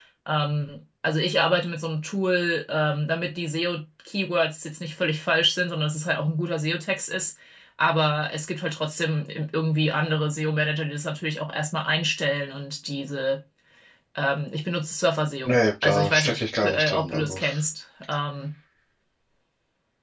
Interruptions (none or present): present